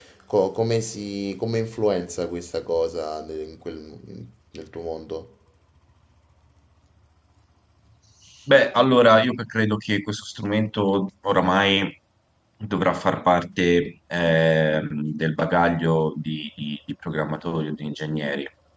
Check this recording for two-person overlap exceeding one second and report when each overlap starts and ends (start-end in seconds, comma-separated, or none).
none